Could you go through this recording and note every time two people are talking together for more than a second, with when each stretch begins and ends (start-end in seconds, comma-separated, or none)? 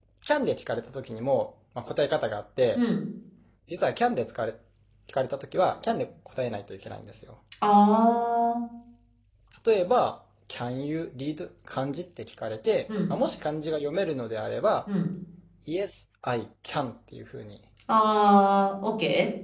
none